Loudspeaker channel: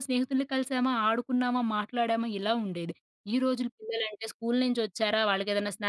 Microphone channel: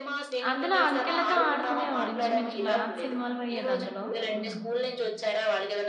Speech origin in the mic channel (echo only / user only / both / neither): both